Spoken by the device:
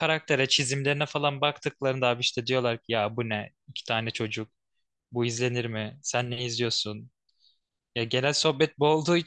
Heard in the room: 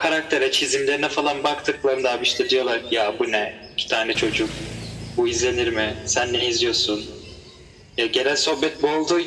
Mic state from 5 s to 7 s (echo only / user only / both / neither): echo only